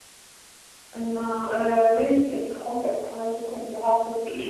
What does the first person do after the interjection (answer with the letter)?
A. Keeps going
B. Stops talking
B